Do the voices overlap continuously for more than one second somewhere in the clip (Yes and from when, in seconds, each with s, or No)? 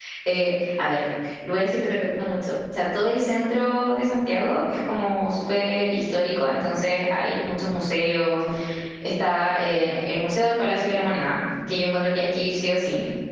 No